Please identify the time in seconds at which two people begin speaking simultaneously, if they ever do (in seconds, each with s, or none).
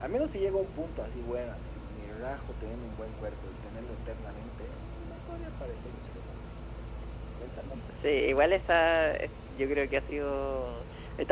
none